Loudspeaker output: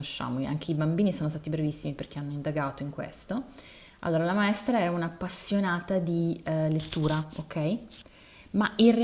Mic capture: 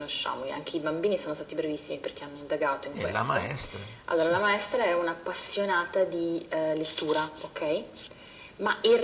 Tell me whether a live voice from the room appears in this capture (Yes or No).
Yes